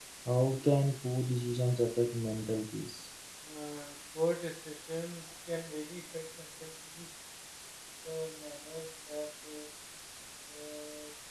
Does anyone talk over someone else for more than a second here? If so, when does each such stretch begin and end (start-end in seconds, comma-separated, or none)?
none